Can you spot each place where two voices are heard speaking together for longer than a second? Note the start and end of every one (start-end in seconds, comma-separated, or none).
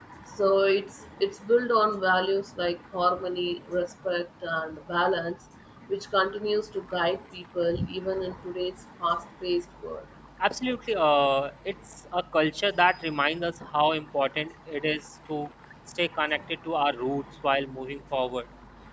none